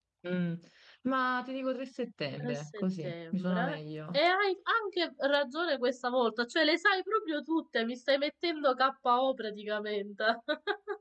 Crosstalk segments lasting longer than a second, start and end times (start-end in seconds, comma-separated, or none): 2.4-3.6